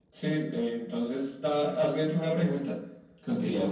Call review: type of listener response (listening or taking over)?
taking over